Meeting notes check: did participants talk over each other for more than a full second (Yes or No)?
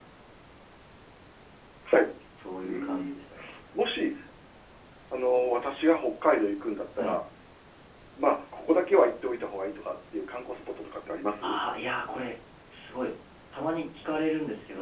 No